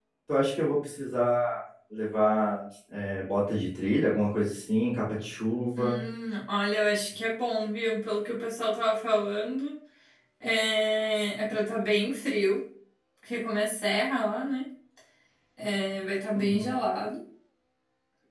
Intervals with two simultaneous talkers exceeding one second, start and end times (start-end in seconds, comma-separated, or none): none